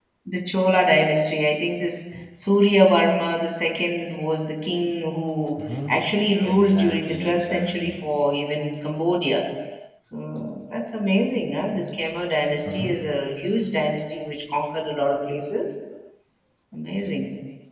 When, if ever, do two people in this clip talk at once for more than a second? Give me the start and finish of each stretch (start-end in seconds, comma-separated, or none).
6.4-8.0